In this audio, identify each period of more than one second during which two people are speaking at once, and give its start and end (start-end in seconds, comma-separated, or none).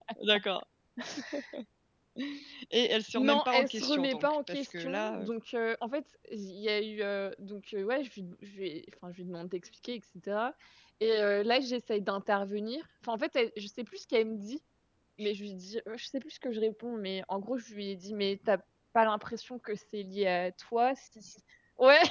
3.1-5.3